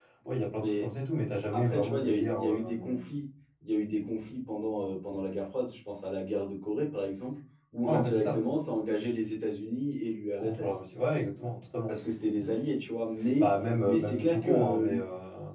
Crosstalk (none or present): present